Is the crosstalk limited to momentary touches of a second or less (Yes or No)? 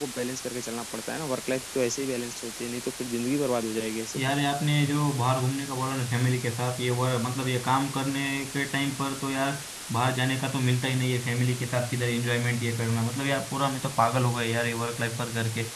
Yes